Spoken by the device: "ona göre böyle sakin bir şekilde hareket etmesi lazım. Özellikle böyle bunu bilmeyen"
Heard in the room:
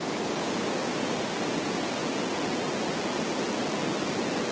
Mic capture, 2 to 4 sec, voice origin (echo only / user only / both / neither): neither